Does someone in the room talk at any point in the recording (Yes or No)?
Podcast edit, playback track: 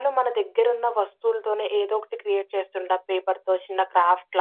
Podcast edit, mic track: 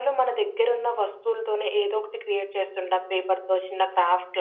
No